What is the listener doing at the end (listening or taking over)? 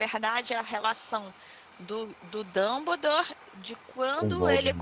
listening